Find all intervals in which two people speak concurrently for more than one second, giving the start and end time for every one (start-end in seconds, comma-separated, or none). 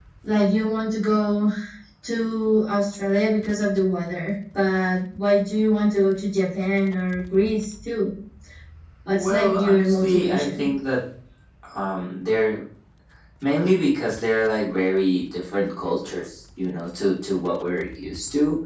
9.1-10.7